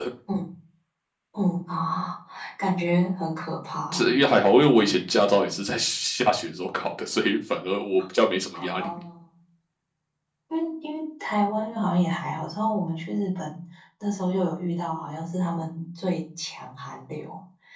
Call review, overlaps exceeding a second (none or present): none